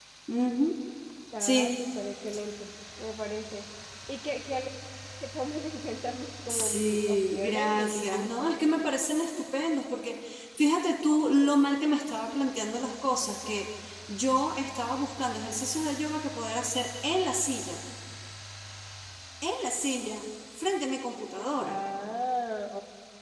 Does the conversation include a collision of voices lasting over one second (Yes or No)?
Yes